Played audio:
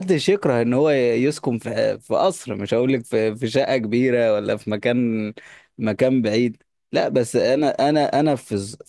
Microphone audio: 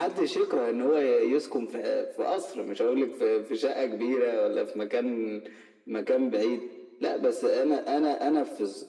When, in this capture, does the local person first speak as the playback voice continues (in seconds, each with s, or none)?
none